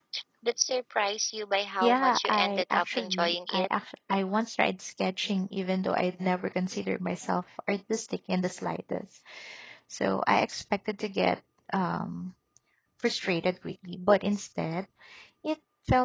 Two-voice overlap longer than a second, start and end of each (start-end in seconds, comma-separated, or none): 1.8-3.7